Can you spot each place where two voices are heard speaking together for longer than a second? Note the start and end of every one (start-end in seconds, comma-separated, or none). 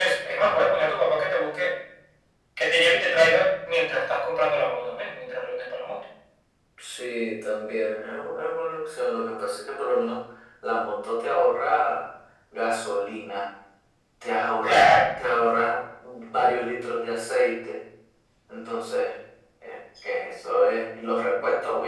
none